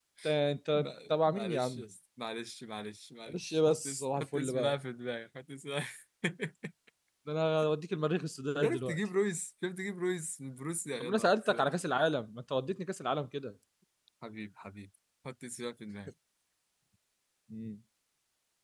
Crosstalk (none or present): present